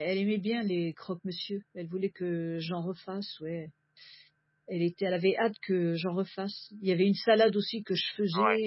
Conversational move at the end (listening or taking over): listening